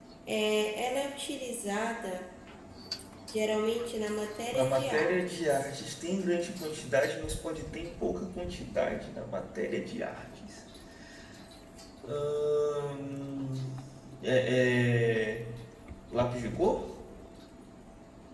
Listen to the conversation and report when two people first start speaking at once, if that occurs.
4.5 s

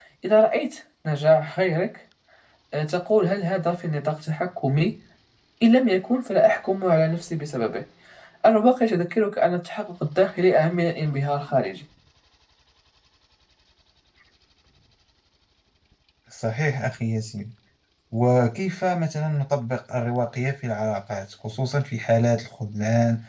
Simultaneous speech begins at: none

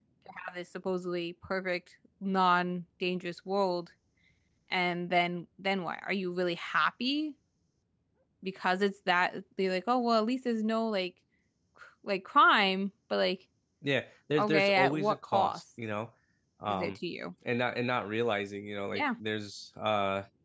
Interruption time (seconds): 14.4 s

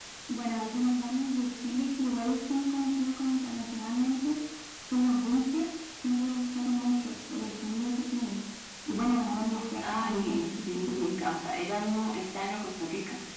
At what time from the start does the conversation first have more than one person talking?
9.8 s

